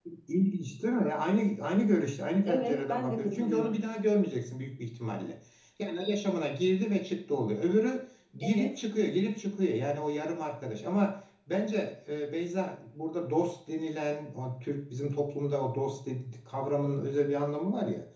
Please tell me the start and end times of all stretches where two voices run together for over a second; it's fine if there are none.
2.5-3.7

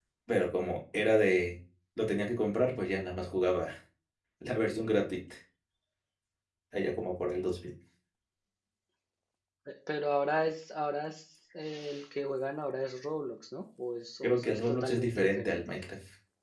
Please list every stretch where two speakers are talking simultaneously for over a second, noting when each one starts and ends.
14.2-15.6

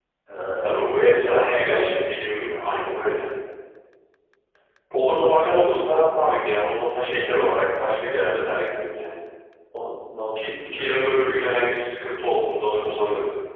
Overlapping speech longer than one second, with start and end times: 0.6-2.1, 10.3-11.6

